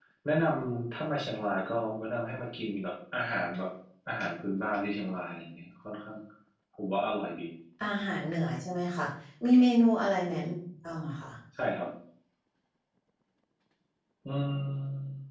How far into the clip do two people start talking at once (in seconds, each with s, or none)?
none